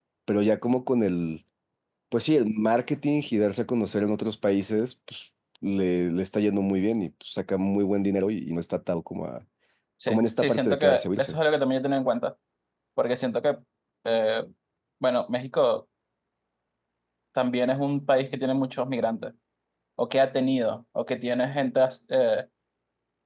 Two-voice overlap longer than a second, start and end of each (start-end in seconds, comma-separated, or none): 10.1-11.4